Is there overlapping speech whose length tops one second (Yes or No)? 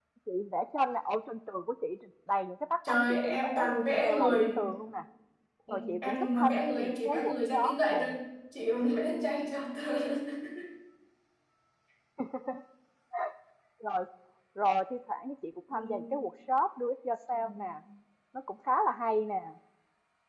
Yes